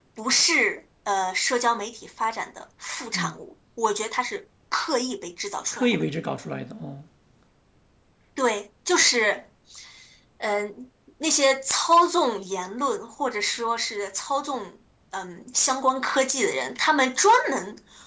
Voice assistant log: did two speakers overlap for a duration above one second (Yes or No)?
No